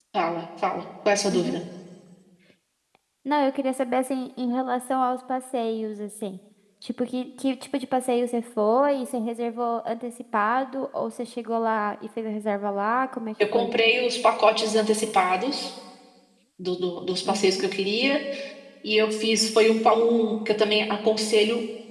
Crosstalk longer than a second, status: none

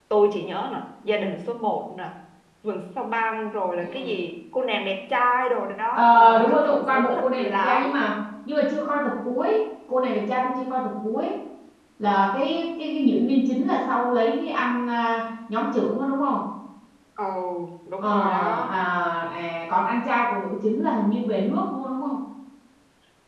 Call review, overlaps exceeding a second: present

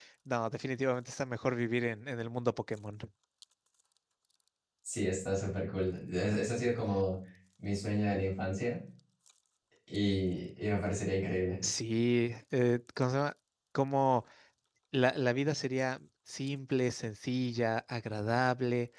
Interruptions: none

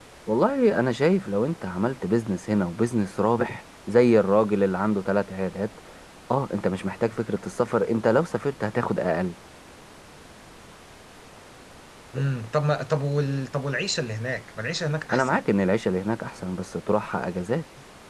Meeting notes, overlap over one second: none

